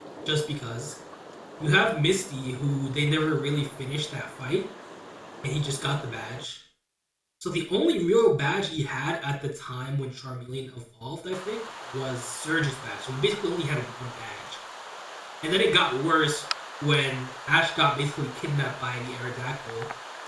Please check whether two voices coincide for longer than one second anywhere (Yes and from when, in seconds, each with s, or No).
No